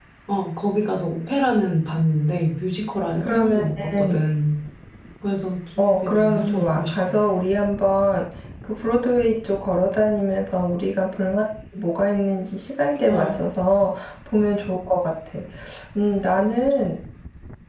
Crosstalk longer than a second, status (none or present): present